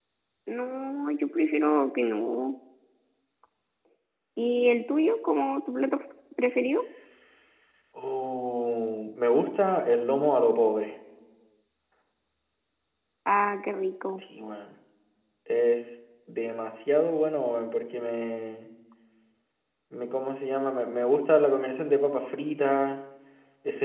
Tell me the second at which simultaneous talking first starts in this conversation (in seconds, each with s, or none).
none